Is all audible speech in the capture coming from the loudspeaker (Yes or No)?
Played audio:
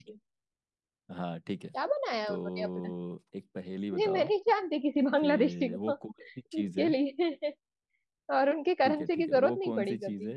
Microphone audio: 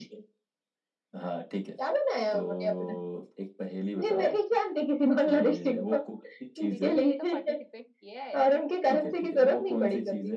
No